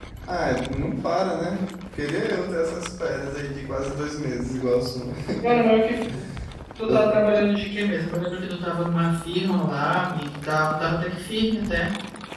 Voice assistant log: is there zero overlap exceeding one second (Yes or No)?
Yes